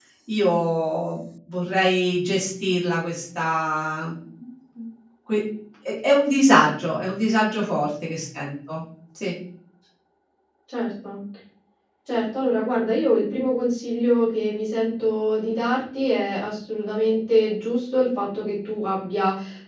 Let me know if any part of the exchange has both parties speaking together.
No

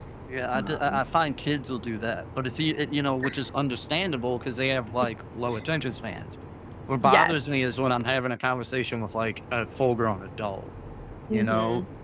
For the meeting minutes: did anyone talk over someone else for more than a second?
No

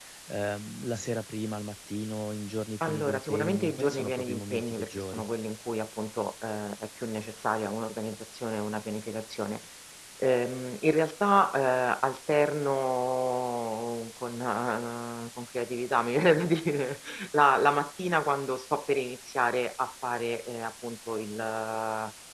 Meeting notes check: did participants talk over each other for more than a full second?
Yes, from 2.8 s

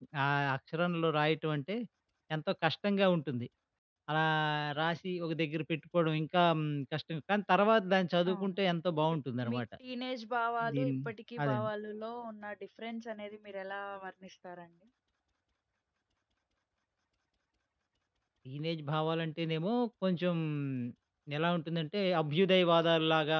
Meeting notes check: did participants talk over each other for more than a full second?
No

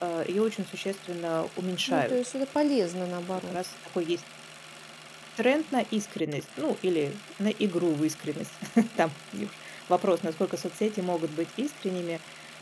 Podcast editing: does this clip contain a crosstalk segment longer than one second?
No

